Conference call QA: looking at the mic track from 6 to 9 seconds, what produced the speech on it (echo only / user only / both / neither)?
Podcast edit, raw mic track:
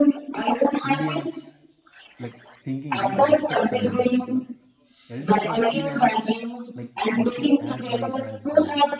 both